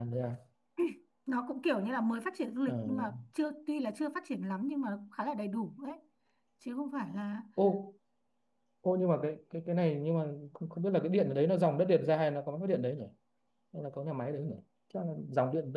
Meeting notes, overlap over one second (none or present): none